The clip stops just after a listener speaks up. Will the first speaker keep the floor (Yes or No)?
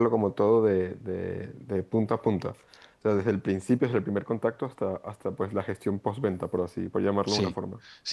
No